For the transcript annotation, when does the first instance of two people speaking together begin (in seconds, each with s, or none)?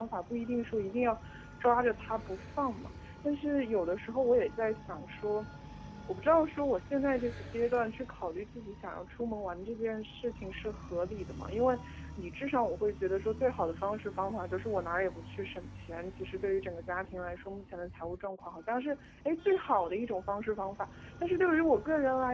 none